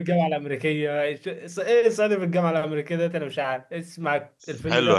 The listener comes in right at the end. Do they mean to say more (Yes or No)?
Yes